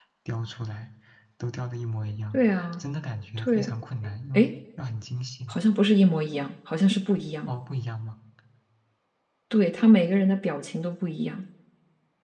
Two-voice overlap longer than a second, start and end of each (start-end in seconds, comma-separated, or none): none